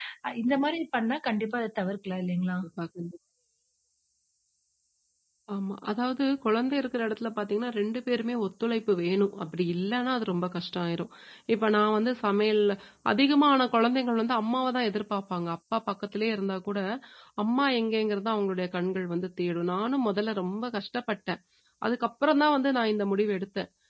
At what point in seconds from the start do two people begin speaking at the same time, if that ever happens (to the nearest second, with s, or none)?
none